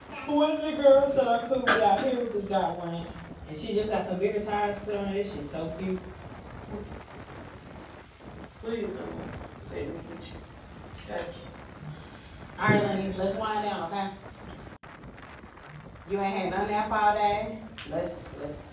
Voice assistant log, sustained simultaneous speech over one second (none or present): none